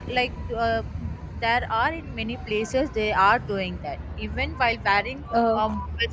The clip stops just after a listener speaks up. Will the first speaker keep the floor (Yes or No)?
Yes